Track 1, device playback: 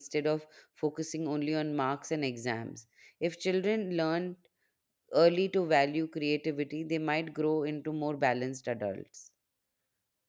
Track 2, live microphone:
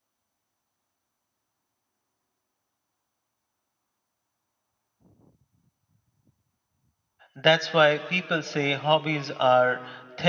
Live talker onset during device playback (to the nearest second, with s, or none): 7 s